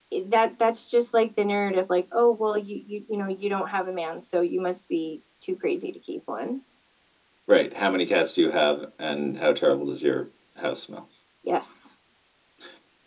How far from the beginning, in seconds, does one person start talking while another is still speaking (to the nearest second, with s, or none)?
none